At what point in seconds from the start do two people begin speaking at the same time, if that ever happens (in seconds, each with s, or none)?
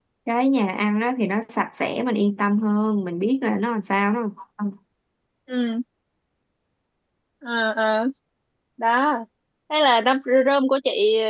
none